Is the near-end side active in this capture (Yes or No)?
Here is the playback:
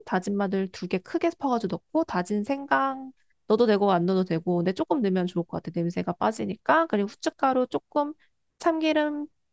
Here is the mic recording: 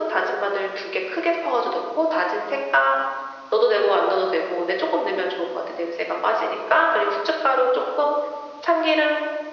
No